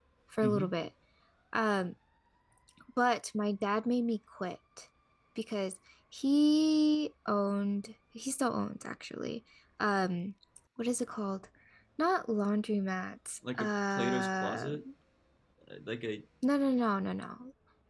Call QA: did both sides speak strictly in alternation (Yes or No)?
No